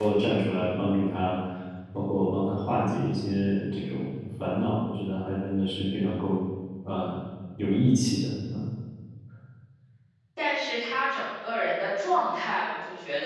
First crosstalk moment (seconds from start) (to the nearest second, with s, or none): none